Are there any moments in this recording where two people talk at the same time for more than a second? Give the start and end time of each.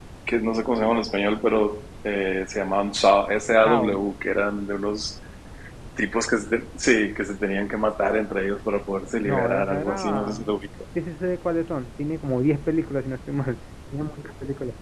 9.2-10.5

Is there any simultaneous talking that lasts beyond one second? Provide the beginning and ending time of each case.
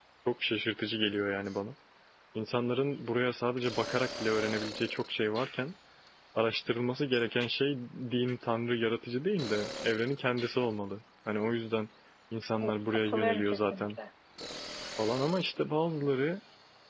12.6-13.9

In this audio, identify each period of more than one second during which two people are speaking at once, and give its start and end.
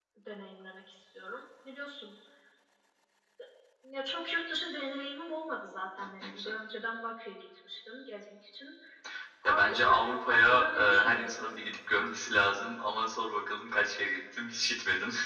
9.4-11.6

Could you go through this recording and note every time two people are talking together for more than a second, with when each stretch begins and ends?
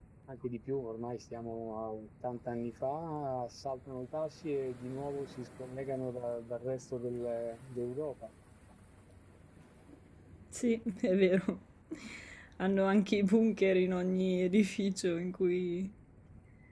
none

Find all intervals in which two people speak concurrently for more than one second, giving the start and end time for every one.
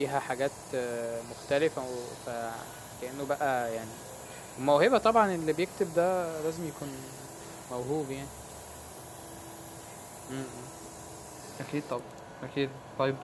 none

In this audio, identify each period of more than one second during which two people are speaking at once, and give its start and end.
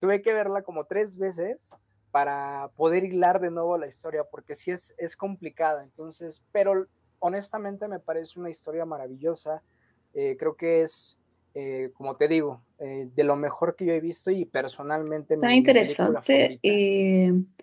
15.4-16.8

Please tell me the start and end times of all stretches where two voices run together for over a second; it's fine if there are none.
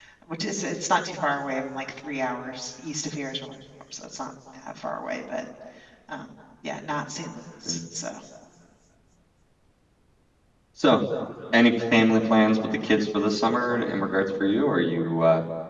none

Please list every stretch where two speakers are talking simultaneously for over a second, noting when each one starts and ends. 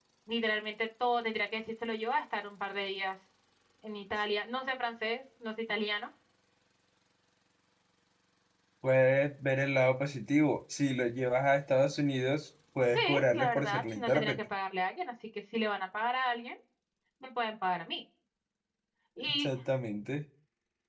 12.9-14.4

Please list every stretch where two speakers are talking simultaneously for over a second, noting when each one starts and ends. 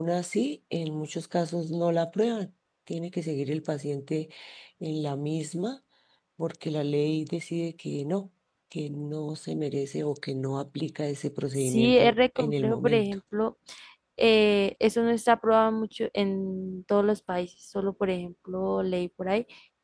11.6-13.2

